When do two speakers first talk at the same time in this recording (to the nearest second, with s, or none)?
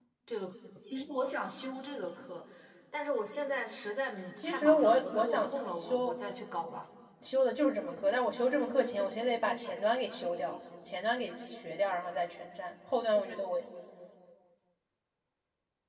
4 s